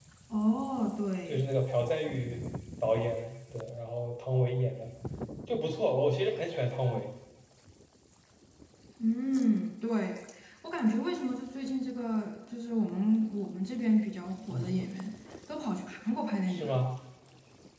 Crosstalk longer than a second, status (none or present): none